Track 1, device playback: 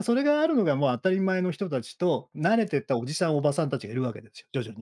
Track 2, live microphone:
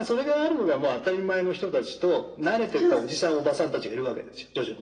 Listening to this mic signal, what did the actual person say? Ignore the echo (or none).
じゃあ、す